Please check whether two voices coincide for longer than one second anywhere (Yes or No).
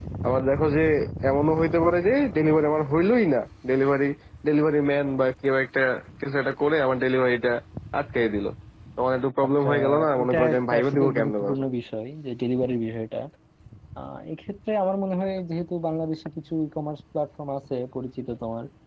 Yes